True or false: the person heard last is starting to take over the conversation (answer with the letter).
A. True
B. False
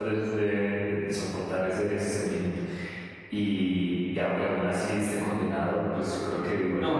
A